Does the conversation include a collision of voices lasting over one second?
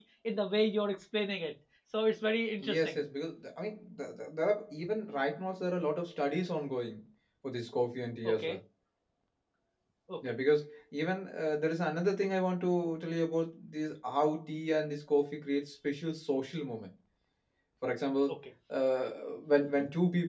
No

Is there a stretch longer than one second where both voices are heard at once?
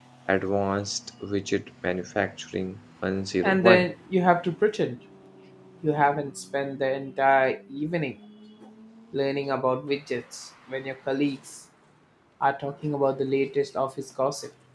No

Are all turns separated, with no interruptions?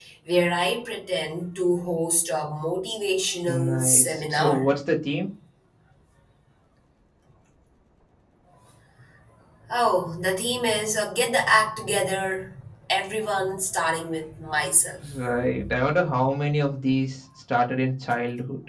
No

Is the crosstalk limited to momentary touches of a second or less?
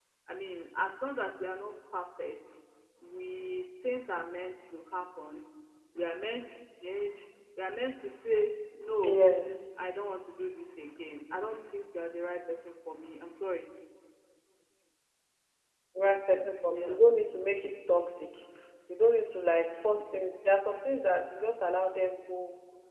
Yes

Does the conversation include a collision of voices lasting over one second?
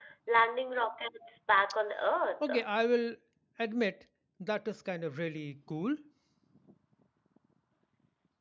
No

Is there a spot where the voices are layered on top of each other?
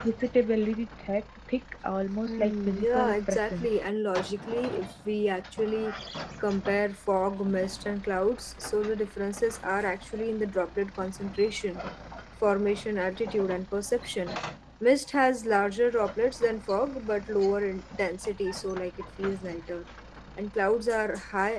Yes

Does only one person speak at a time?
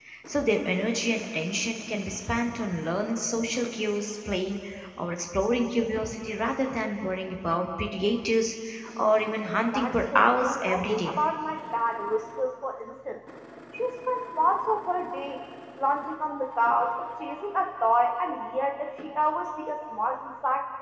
No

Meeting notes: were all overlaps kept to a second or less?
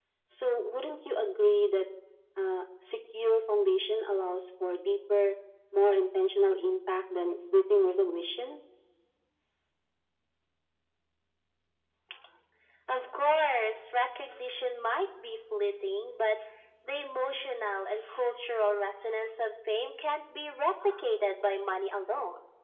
Yes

